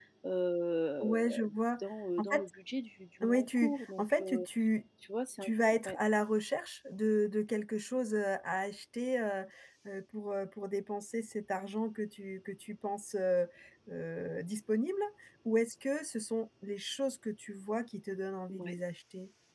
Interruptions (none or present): present